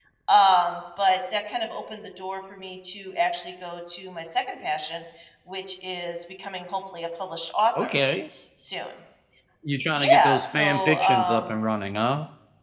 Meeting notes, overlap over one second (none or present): present